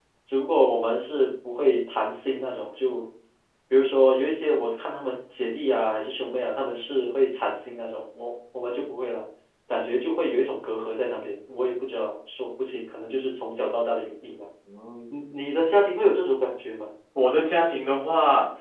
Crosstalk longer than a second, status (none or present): none